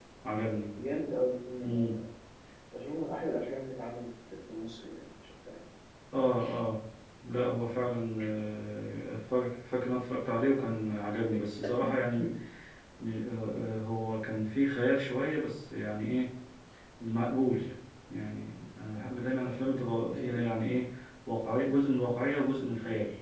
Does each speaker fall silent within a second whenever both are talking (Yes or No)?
Yes